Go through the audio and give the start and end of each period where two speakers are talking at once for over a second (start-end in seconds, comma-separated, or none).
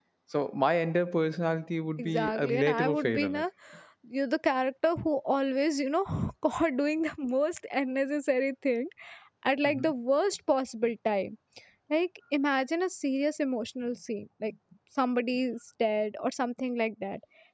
2.0-3.4